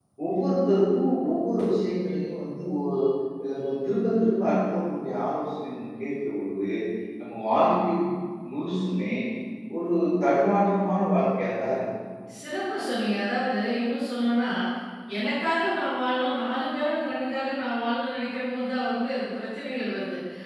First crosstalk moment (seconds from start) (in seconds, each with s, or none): none